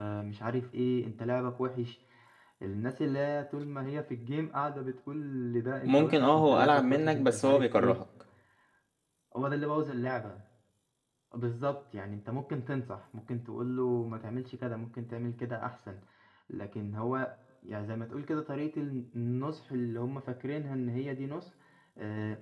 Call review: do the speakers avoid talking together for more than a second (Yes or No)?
No